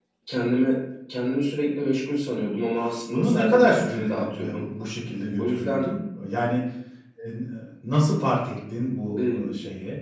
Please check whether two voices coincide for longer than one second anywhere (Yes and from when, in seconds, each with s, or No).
Yes, from 3.1 s